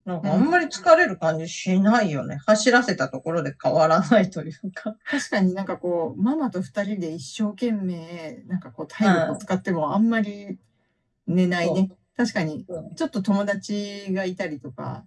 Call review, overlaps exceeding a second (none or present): none